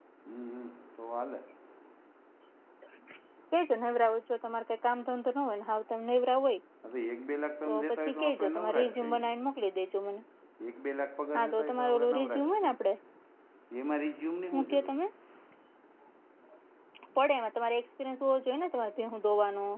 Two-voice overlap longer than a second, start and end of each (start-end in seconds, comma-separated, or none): 7.9-9.3, 11.3-12.7